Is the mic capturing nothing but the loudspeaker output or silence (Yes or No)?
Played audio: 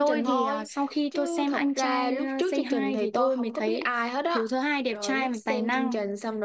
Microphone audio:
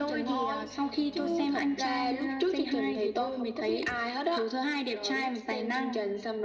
No